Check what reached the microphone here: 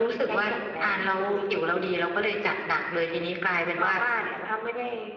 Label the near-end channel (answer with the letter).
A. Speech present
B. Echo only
B